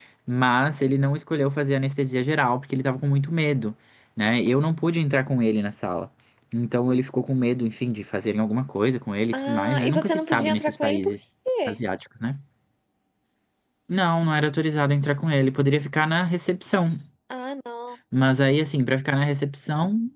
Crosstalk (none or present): present